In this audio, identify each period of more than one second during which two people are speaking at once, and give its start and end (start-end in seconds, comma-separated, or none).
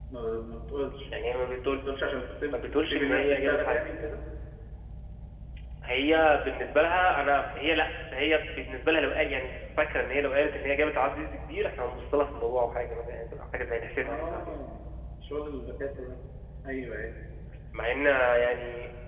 2.5-3.9